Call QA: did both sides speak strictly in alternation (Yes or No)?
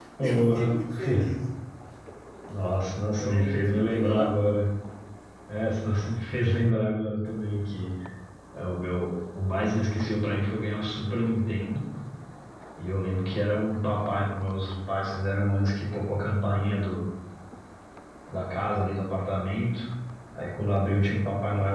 No